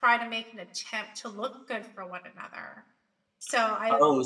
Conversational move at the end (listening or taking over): taking over